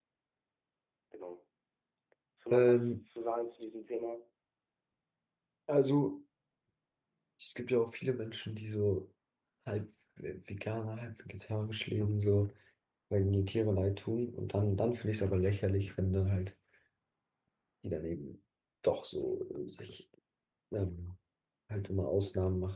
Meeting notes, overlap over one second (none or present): none